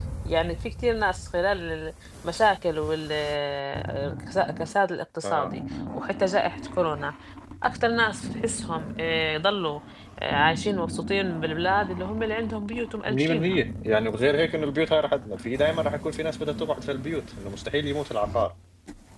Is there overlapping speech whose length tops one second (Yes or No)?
No